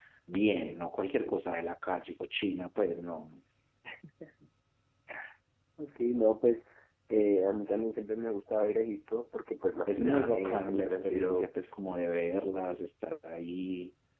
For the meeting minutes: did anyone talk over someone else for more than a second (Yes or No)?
Yes